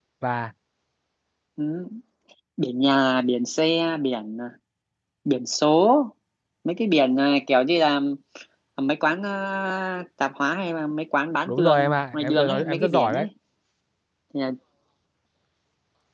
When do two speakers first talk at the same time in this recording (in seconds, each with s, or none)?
11.5 s